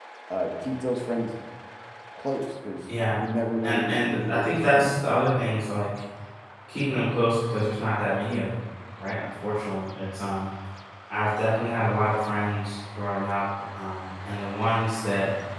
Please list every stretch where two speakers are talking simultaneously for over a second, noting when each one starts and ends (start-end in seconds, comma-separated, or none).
3.6-5.2